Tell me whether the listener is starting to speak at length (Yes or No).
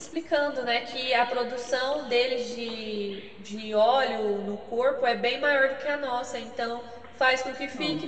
No